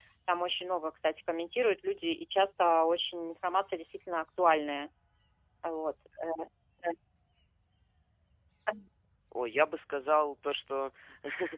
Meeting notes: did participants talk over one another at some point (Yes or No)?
No